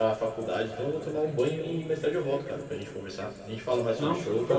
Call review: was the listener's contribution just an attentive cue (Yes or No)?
Yes